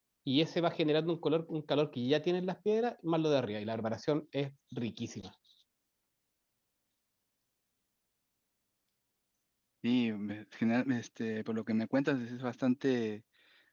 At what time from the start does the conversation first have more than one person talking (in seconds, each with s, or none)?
none